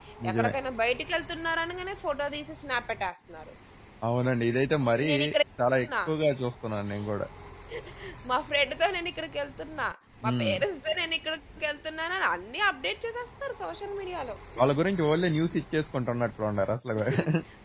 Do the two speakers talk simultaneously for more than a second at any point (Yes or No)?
No